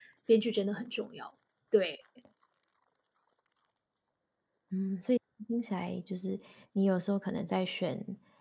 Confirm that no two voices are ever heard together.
Yes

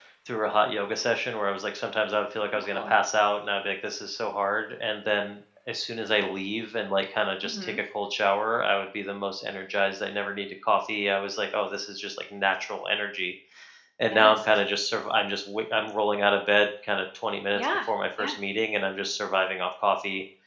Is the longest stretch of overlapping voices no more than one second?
Yes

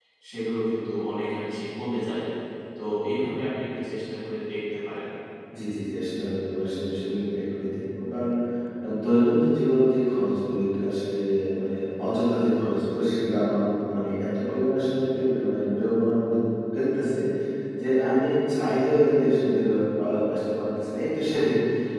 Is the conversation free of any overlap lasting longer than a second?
Yes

